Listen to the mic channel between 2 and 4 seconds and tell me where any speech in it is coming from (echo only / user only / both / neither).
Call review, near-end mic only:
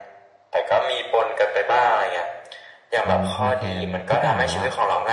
both